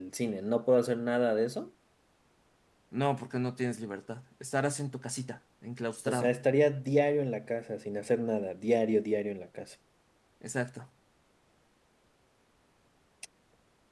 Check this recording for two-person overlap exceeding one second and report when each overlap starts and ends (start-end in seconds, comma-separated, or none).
none